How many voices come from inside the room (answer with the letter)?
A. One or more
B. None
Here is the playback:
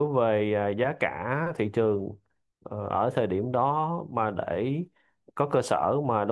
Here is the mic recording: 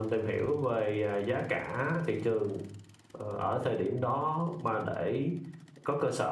B